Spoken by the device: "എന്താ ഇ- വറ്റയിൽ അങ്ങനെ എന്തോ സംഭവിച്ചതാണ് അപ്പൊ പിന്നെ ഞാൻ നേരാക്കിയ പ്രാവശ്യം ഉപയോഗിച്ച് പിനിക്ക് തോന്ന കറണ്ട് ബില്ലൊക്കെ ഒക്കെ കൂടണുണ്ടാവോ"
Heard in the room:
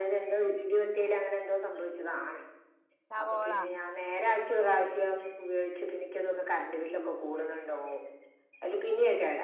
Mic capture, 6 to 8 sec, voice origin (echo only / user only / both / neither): echo only